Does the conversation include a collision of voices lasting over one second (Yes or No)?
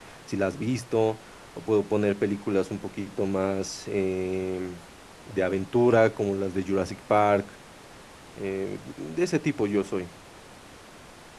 No